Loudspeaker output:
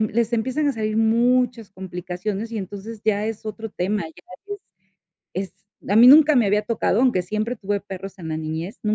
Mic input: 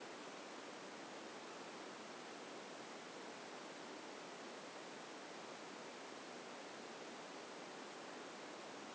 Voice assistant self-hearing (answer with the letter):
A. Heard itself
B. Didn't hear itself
B